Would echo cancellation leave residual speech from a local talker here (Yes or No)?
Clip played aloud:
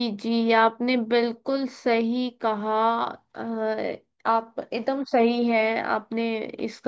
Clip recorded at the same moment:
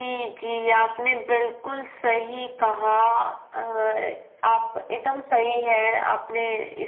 No